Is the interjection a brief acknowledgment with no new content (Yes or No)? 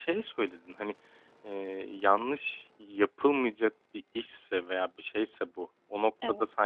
Yes